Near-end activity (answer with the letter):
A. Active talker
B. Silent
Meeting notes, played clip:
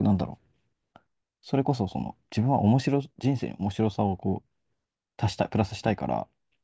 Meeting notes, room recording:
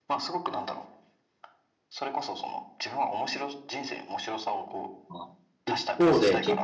A